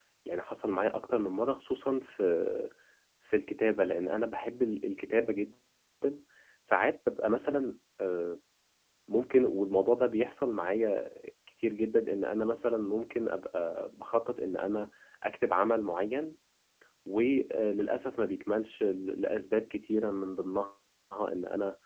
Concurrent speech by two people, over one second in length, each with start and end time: none

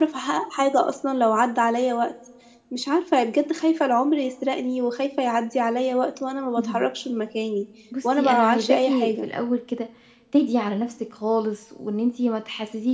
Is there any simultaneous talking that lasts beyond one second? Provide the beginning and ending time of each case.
8.0-9.3

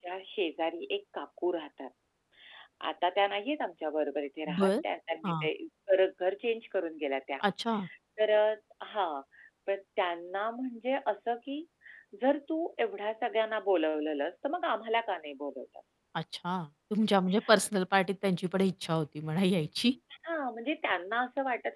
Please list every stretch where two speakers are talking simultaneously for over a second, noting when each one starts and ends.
none

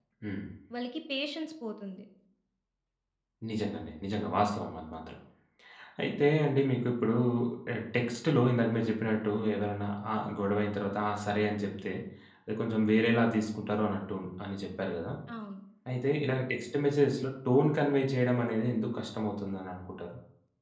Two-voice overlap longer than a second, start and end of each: none

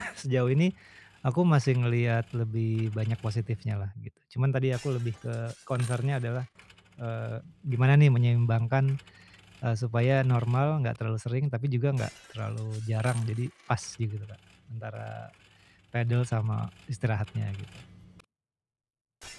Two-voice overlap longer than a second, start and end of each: none

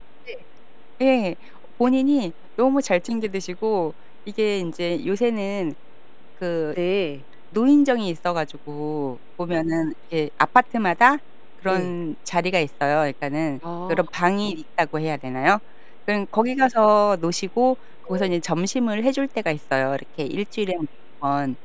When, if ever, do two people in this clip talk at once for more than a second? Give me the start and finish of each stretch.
none

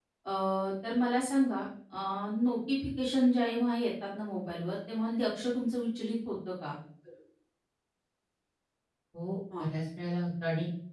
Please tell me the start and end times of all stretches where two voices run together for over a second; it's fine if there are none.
none

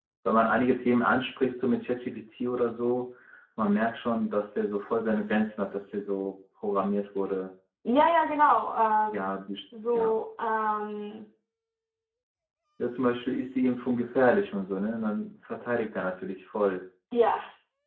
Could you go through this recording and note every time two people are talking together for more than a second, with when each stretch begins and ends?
none

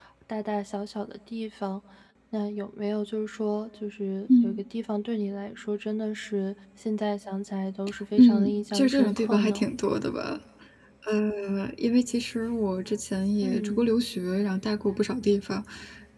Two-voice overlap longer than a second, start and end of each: 8.2-9.6

